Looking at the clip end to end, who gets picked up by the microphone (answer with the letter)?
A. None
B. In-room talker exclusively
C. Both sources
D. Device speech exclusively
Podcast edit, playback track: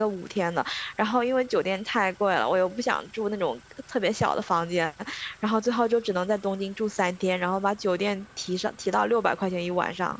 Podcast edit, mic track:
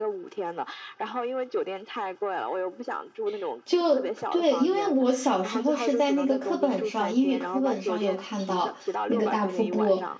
C